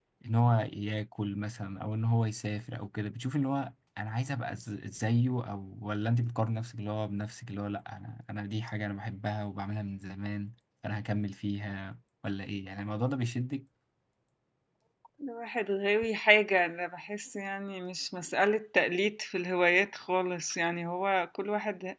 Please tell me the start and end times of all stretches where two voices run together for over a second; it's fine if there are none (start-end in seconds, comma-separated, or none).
none